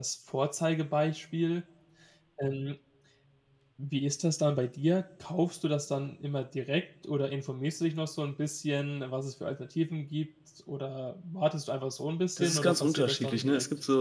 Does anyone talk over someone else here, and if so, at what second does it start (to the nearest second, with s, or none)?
12 s